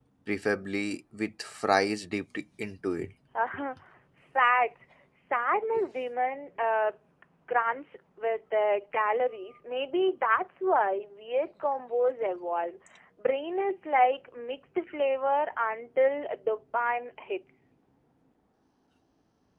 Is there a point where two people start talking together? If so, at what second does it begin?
none

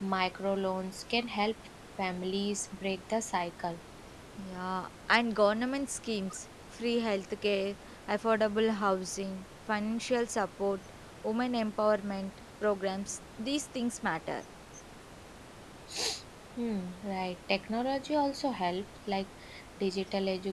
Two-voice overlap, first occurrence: none

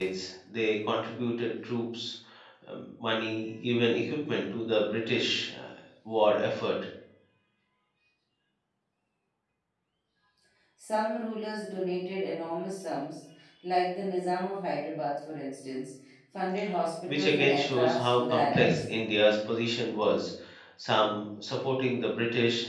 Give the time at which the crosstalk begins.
17.1 s

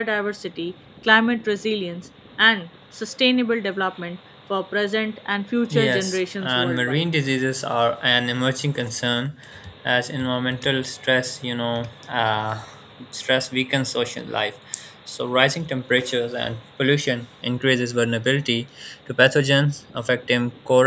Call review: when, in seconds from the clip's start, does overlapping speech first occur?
5.7 s

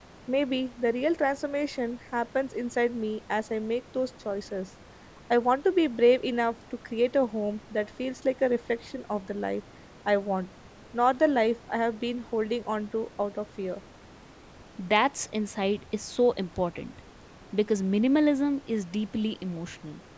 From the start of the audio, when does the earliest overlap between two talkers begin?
none

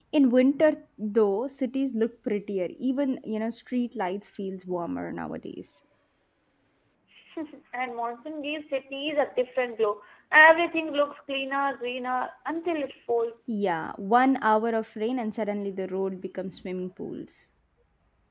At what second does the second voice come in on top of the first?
none

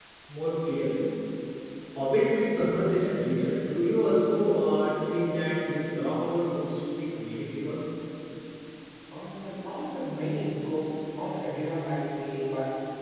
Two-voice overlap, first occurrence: none

